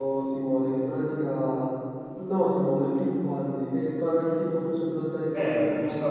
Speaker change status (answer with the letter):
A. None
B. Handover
B